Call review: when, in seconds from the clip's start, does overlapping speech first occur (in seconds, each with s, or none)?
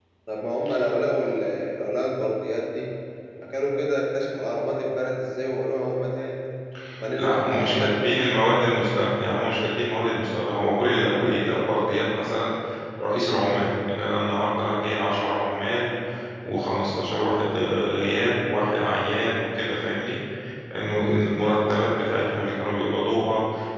7.2 s